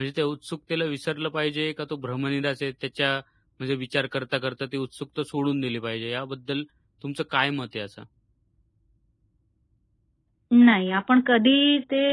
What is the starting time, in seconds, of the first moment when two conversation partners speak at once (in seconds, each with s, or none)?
none